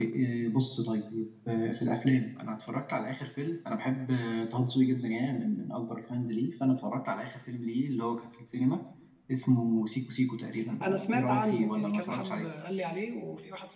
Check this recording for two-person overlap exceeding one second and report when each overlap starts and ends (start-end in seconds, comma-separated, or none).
10.8-12.5